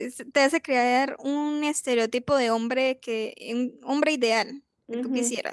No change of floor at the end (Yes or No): No